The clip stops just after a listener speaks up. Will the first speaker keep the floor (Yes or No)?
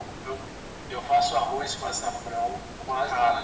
Yes